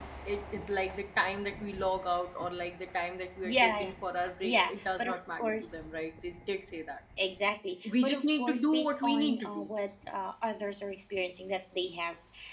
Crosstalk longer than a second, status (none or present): present